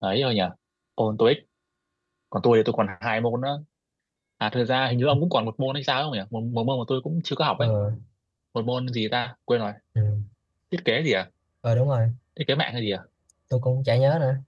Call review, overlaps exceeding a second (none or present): none